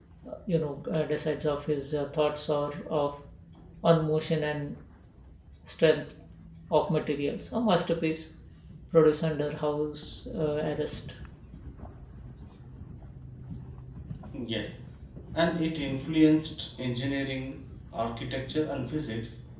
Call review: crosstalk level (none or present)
none